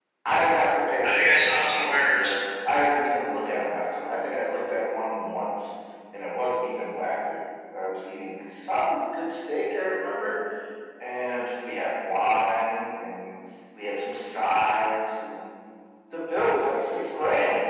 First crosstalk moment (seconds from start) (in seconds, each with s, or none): 1.0 s